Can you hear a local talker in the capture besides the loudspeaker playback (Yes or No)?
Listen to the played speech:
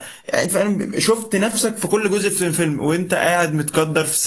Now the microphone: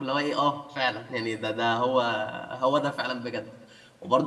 Yes